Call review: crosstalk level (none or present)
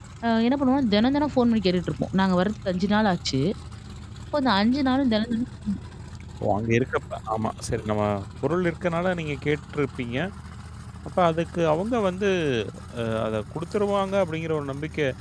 none